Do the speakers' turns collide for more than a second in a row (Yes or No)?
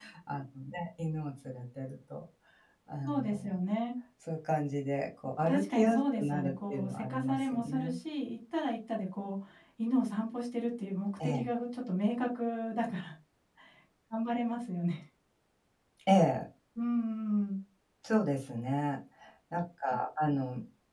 Yes